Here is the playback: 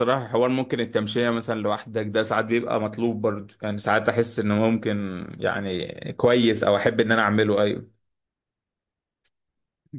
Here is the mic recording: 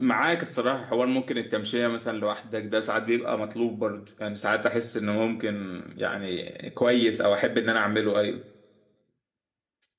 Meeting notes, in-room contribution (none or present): none